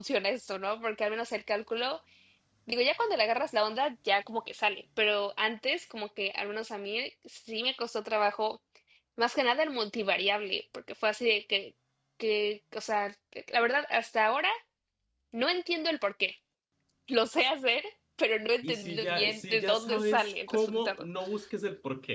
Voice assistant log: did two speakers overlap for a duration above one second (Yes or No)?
Yes